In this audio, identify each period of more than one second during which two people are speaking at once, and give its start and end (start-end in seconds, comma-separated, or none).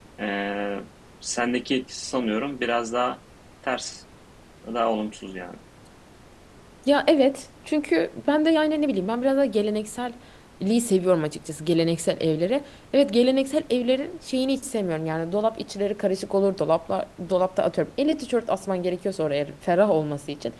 none